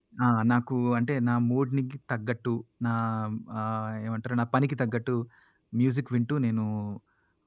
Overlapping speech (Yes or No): No